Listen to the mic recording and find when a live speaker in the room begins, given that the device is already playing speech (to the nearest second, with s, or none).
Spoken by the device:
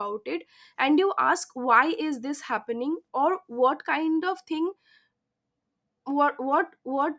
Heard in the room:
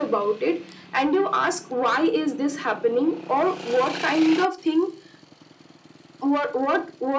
none